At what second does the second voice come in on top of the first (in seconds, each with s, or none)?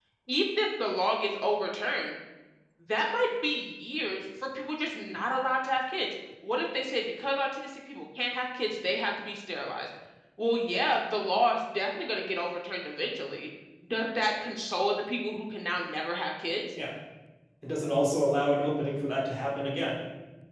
none